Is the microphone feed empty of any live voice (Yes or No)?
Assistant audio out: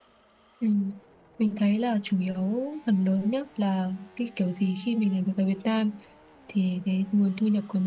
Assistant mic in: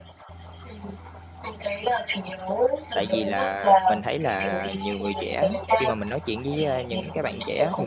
No